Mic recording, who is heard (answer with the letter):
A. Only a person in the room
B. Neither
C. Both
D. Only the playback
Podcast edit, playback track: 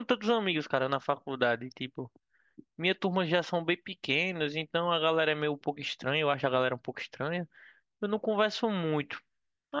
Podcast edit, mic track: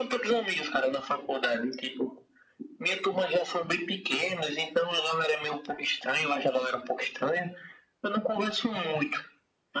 D